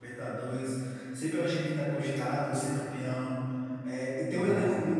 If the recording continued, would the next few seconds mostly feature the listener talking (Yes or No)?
No